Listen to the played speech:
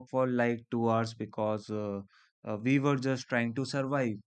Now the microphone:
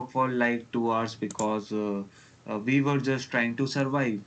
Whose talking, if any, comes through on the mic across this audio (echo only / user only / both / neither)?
echo only